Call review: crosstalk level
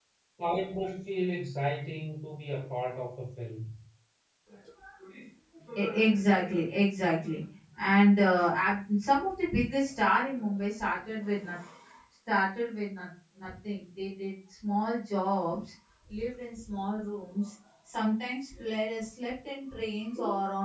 none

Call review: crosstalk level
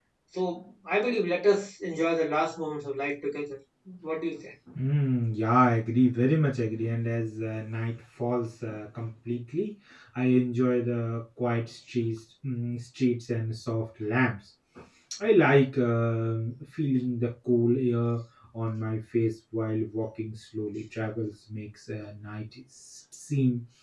none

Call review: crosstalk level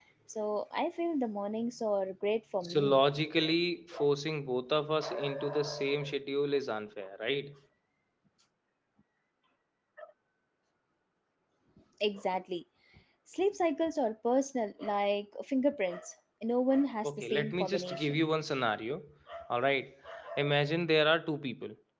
present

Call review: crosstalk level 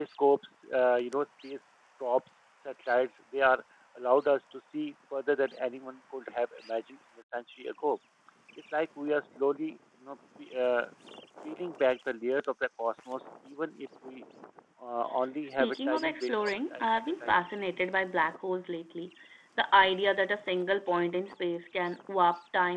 present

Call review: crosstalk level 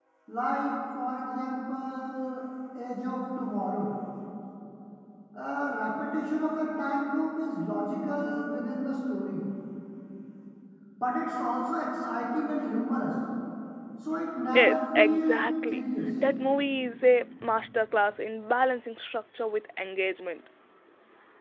present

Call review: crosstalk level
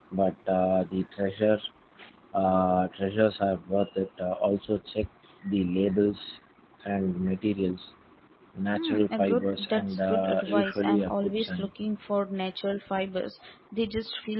present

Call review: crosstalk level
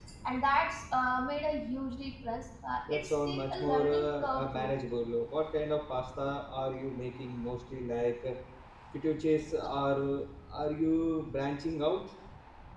present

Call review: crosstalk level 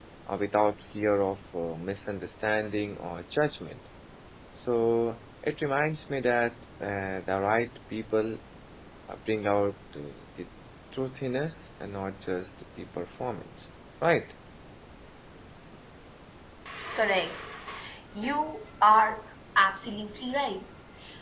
none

